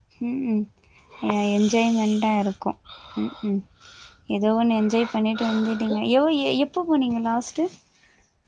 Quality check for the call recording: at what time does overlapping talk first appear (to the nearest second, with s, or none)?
none